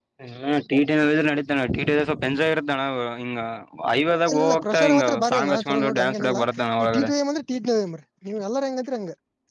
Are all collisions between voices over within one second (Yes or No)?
No